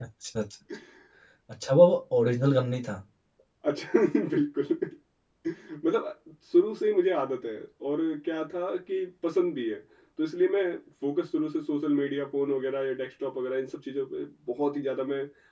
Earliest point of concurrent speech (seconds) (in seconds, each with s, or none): none